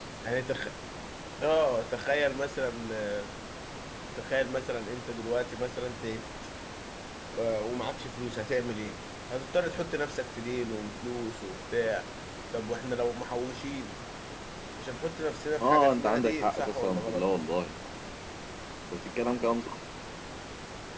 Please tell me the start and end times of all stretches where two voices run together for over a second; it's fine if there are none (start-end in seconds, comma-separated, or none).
15.6-17.2